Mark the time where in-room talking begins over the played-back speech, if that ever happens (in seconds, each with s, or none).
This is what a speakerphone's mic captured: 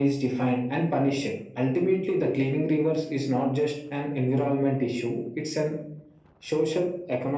none